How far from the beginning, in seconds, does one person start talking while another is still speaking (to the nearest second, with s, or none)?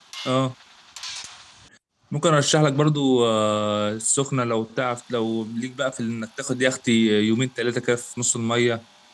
none